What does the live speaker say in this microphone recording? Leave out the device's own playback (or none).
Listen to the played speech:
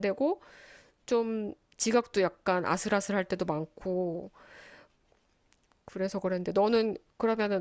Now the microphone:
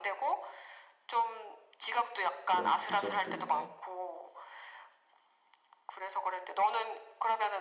그런 관점도 있네.